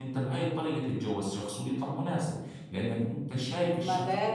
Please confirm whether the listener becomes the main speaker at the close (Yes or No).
Yes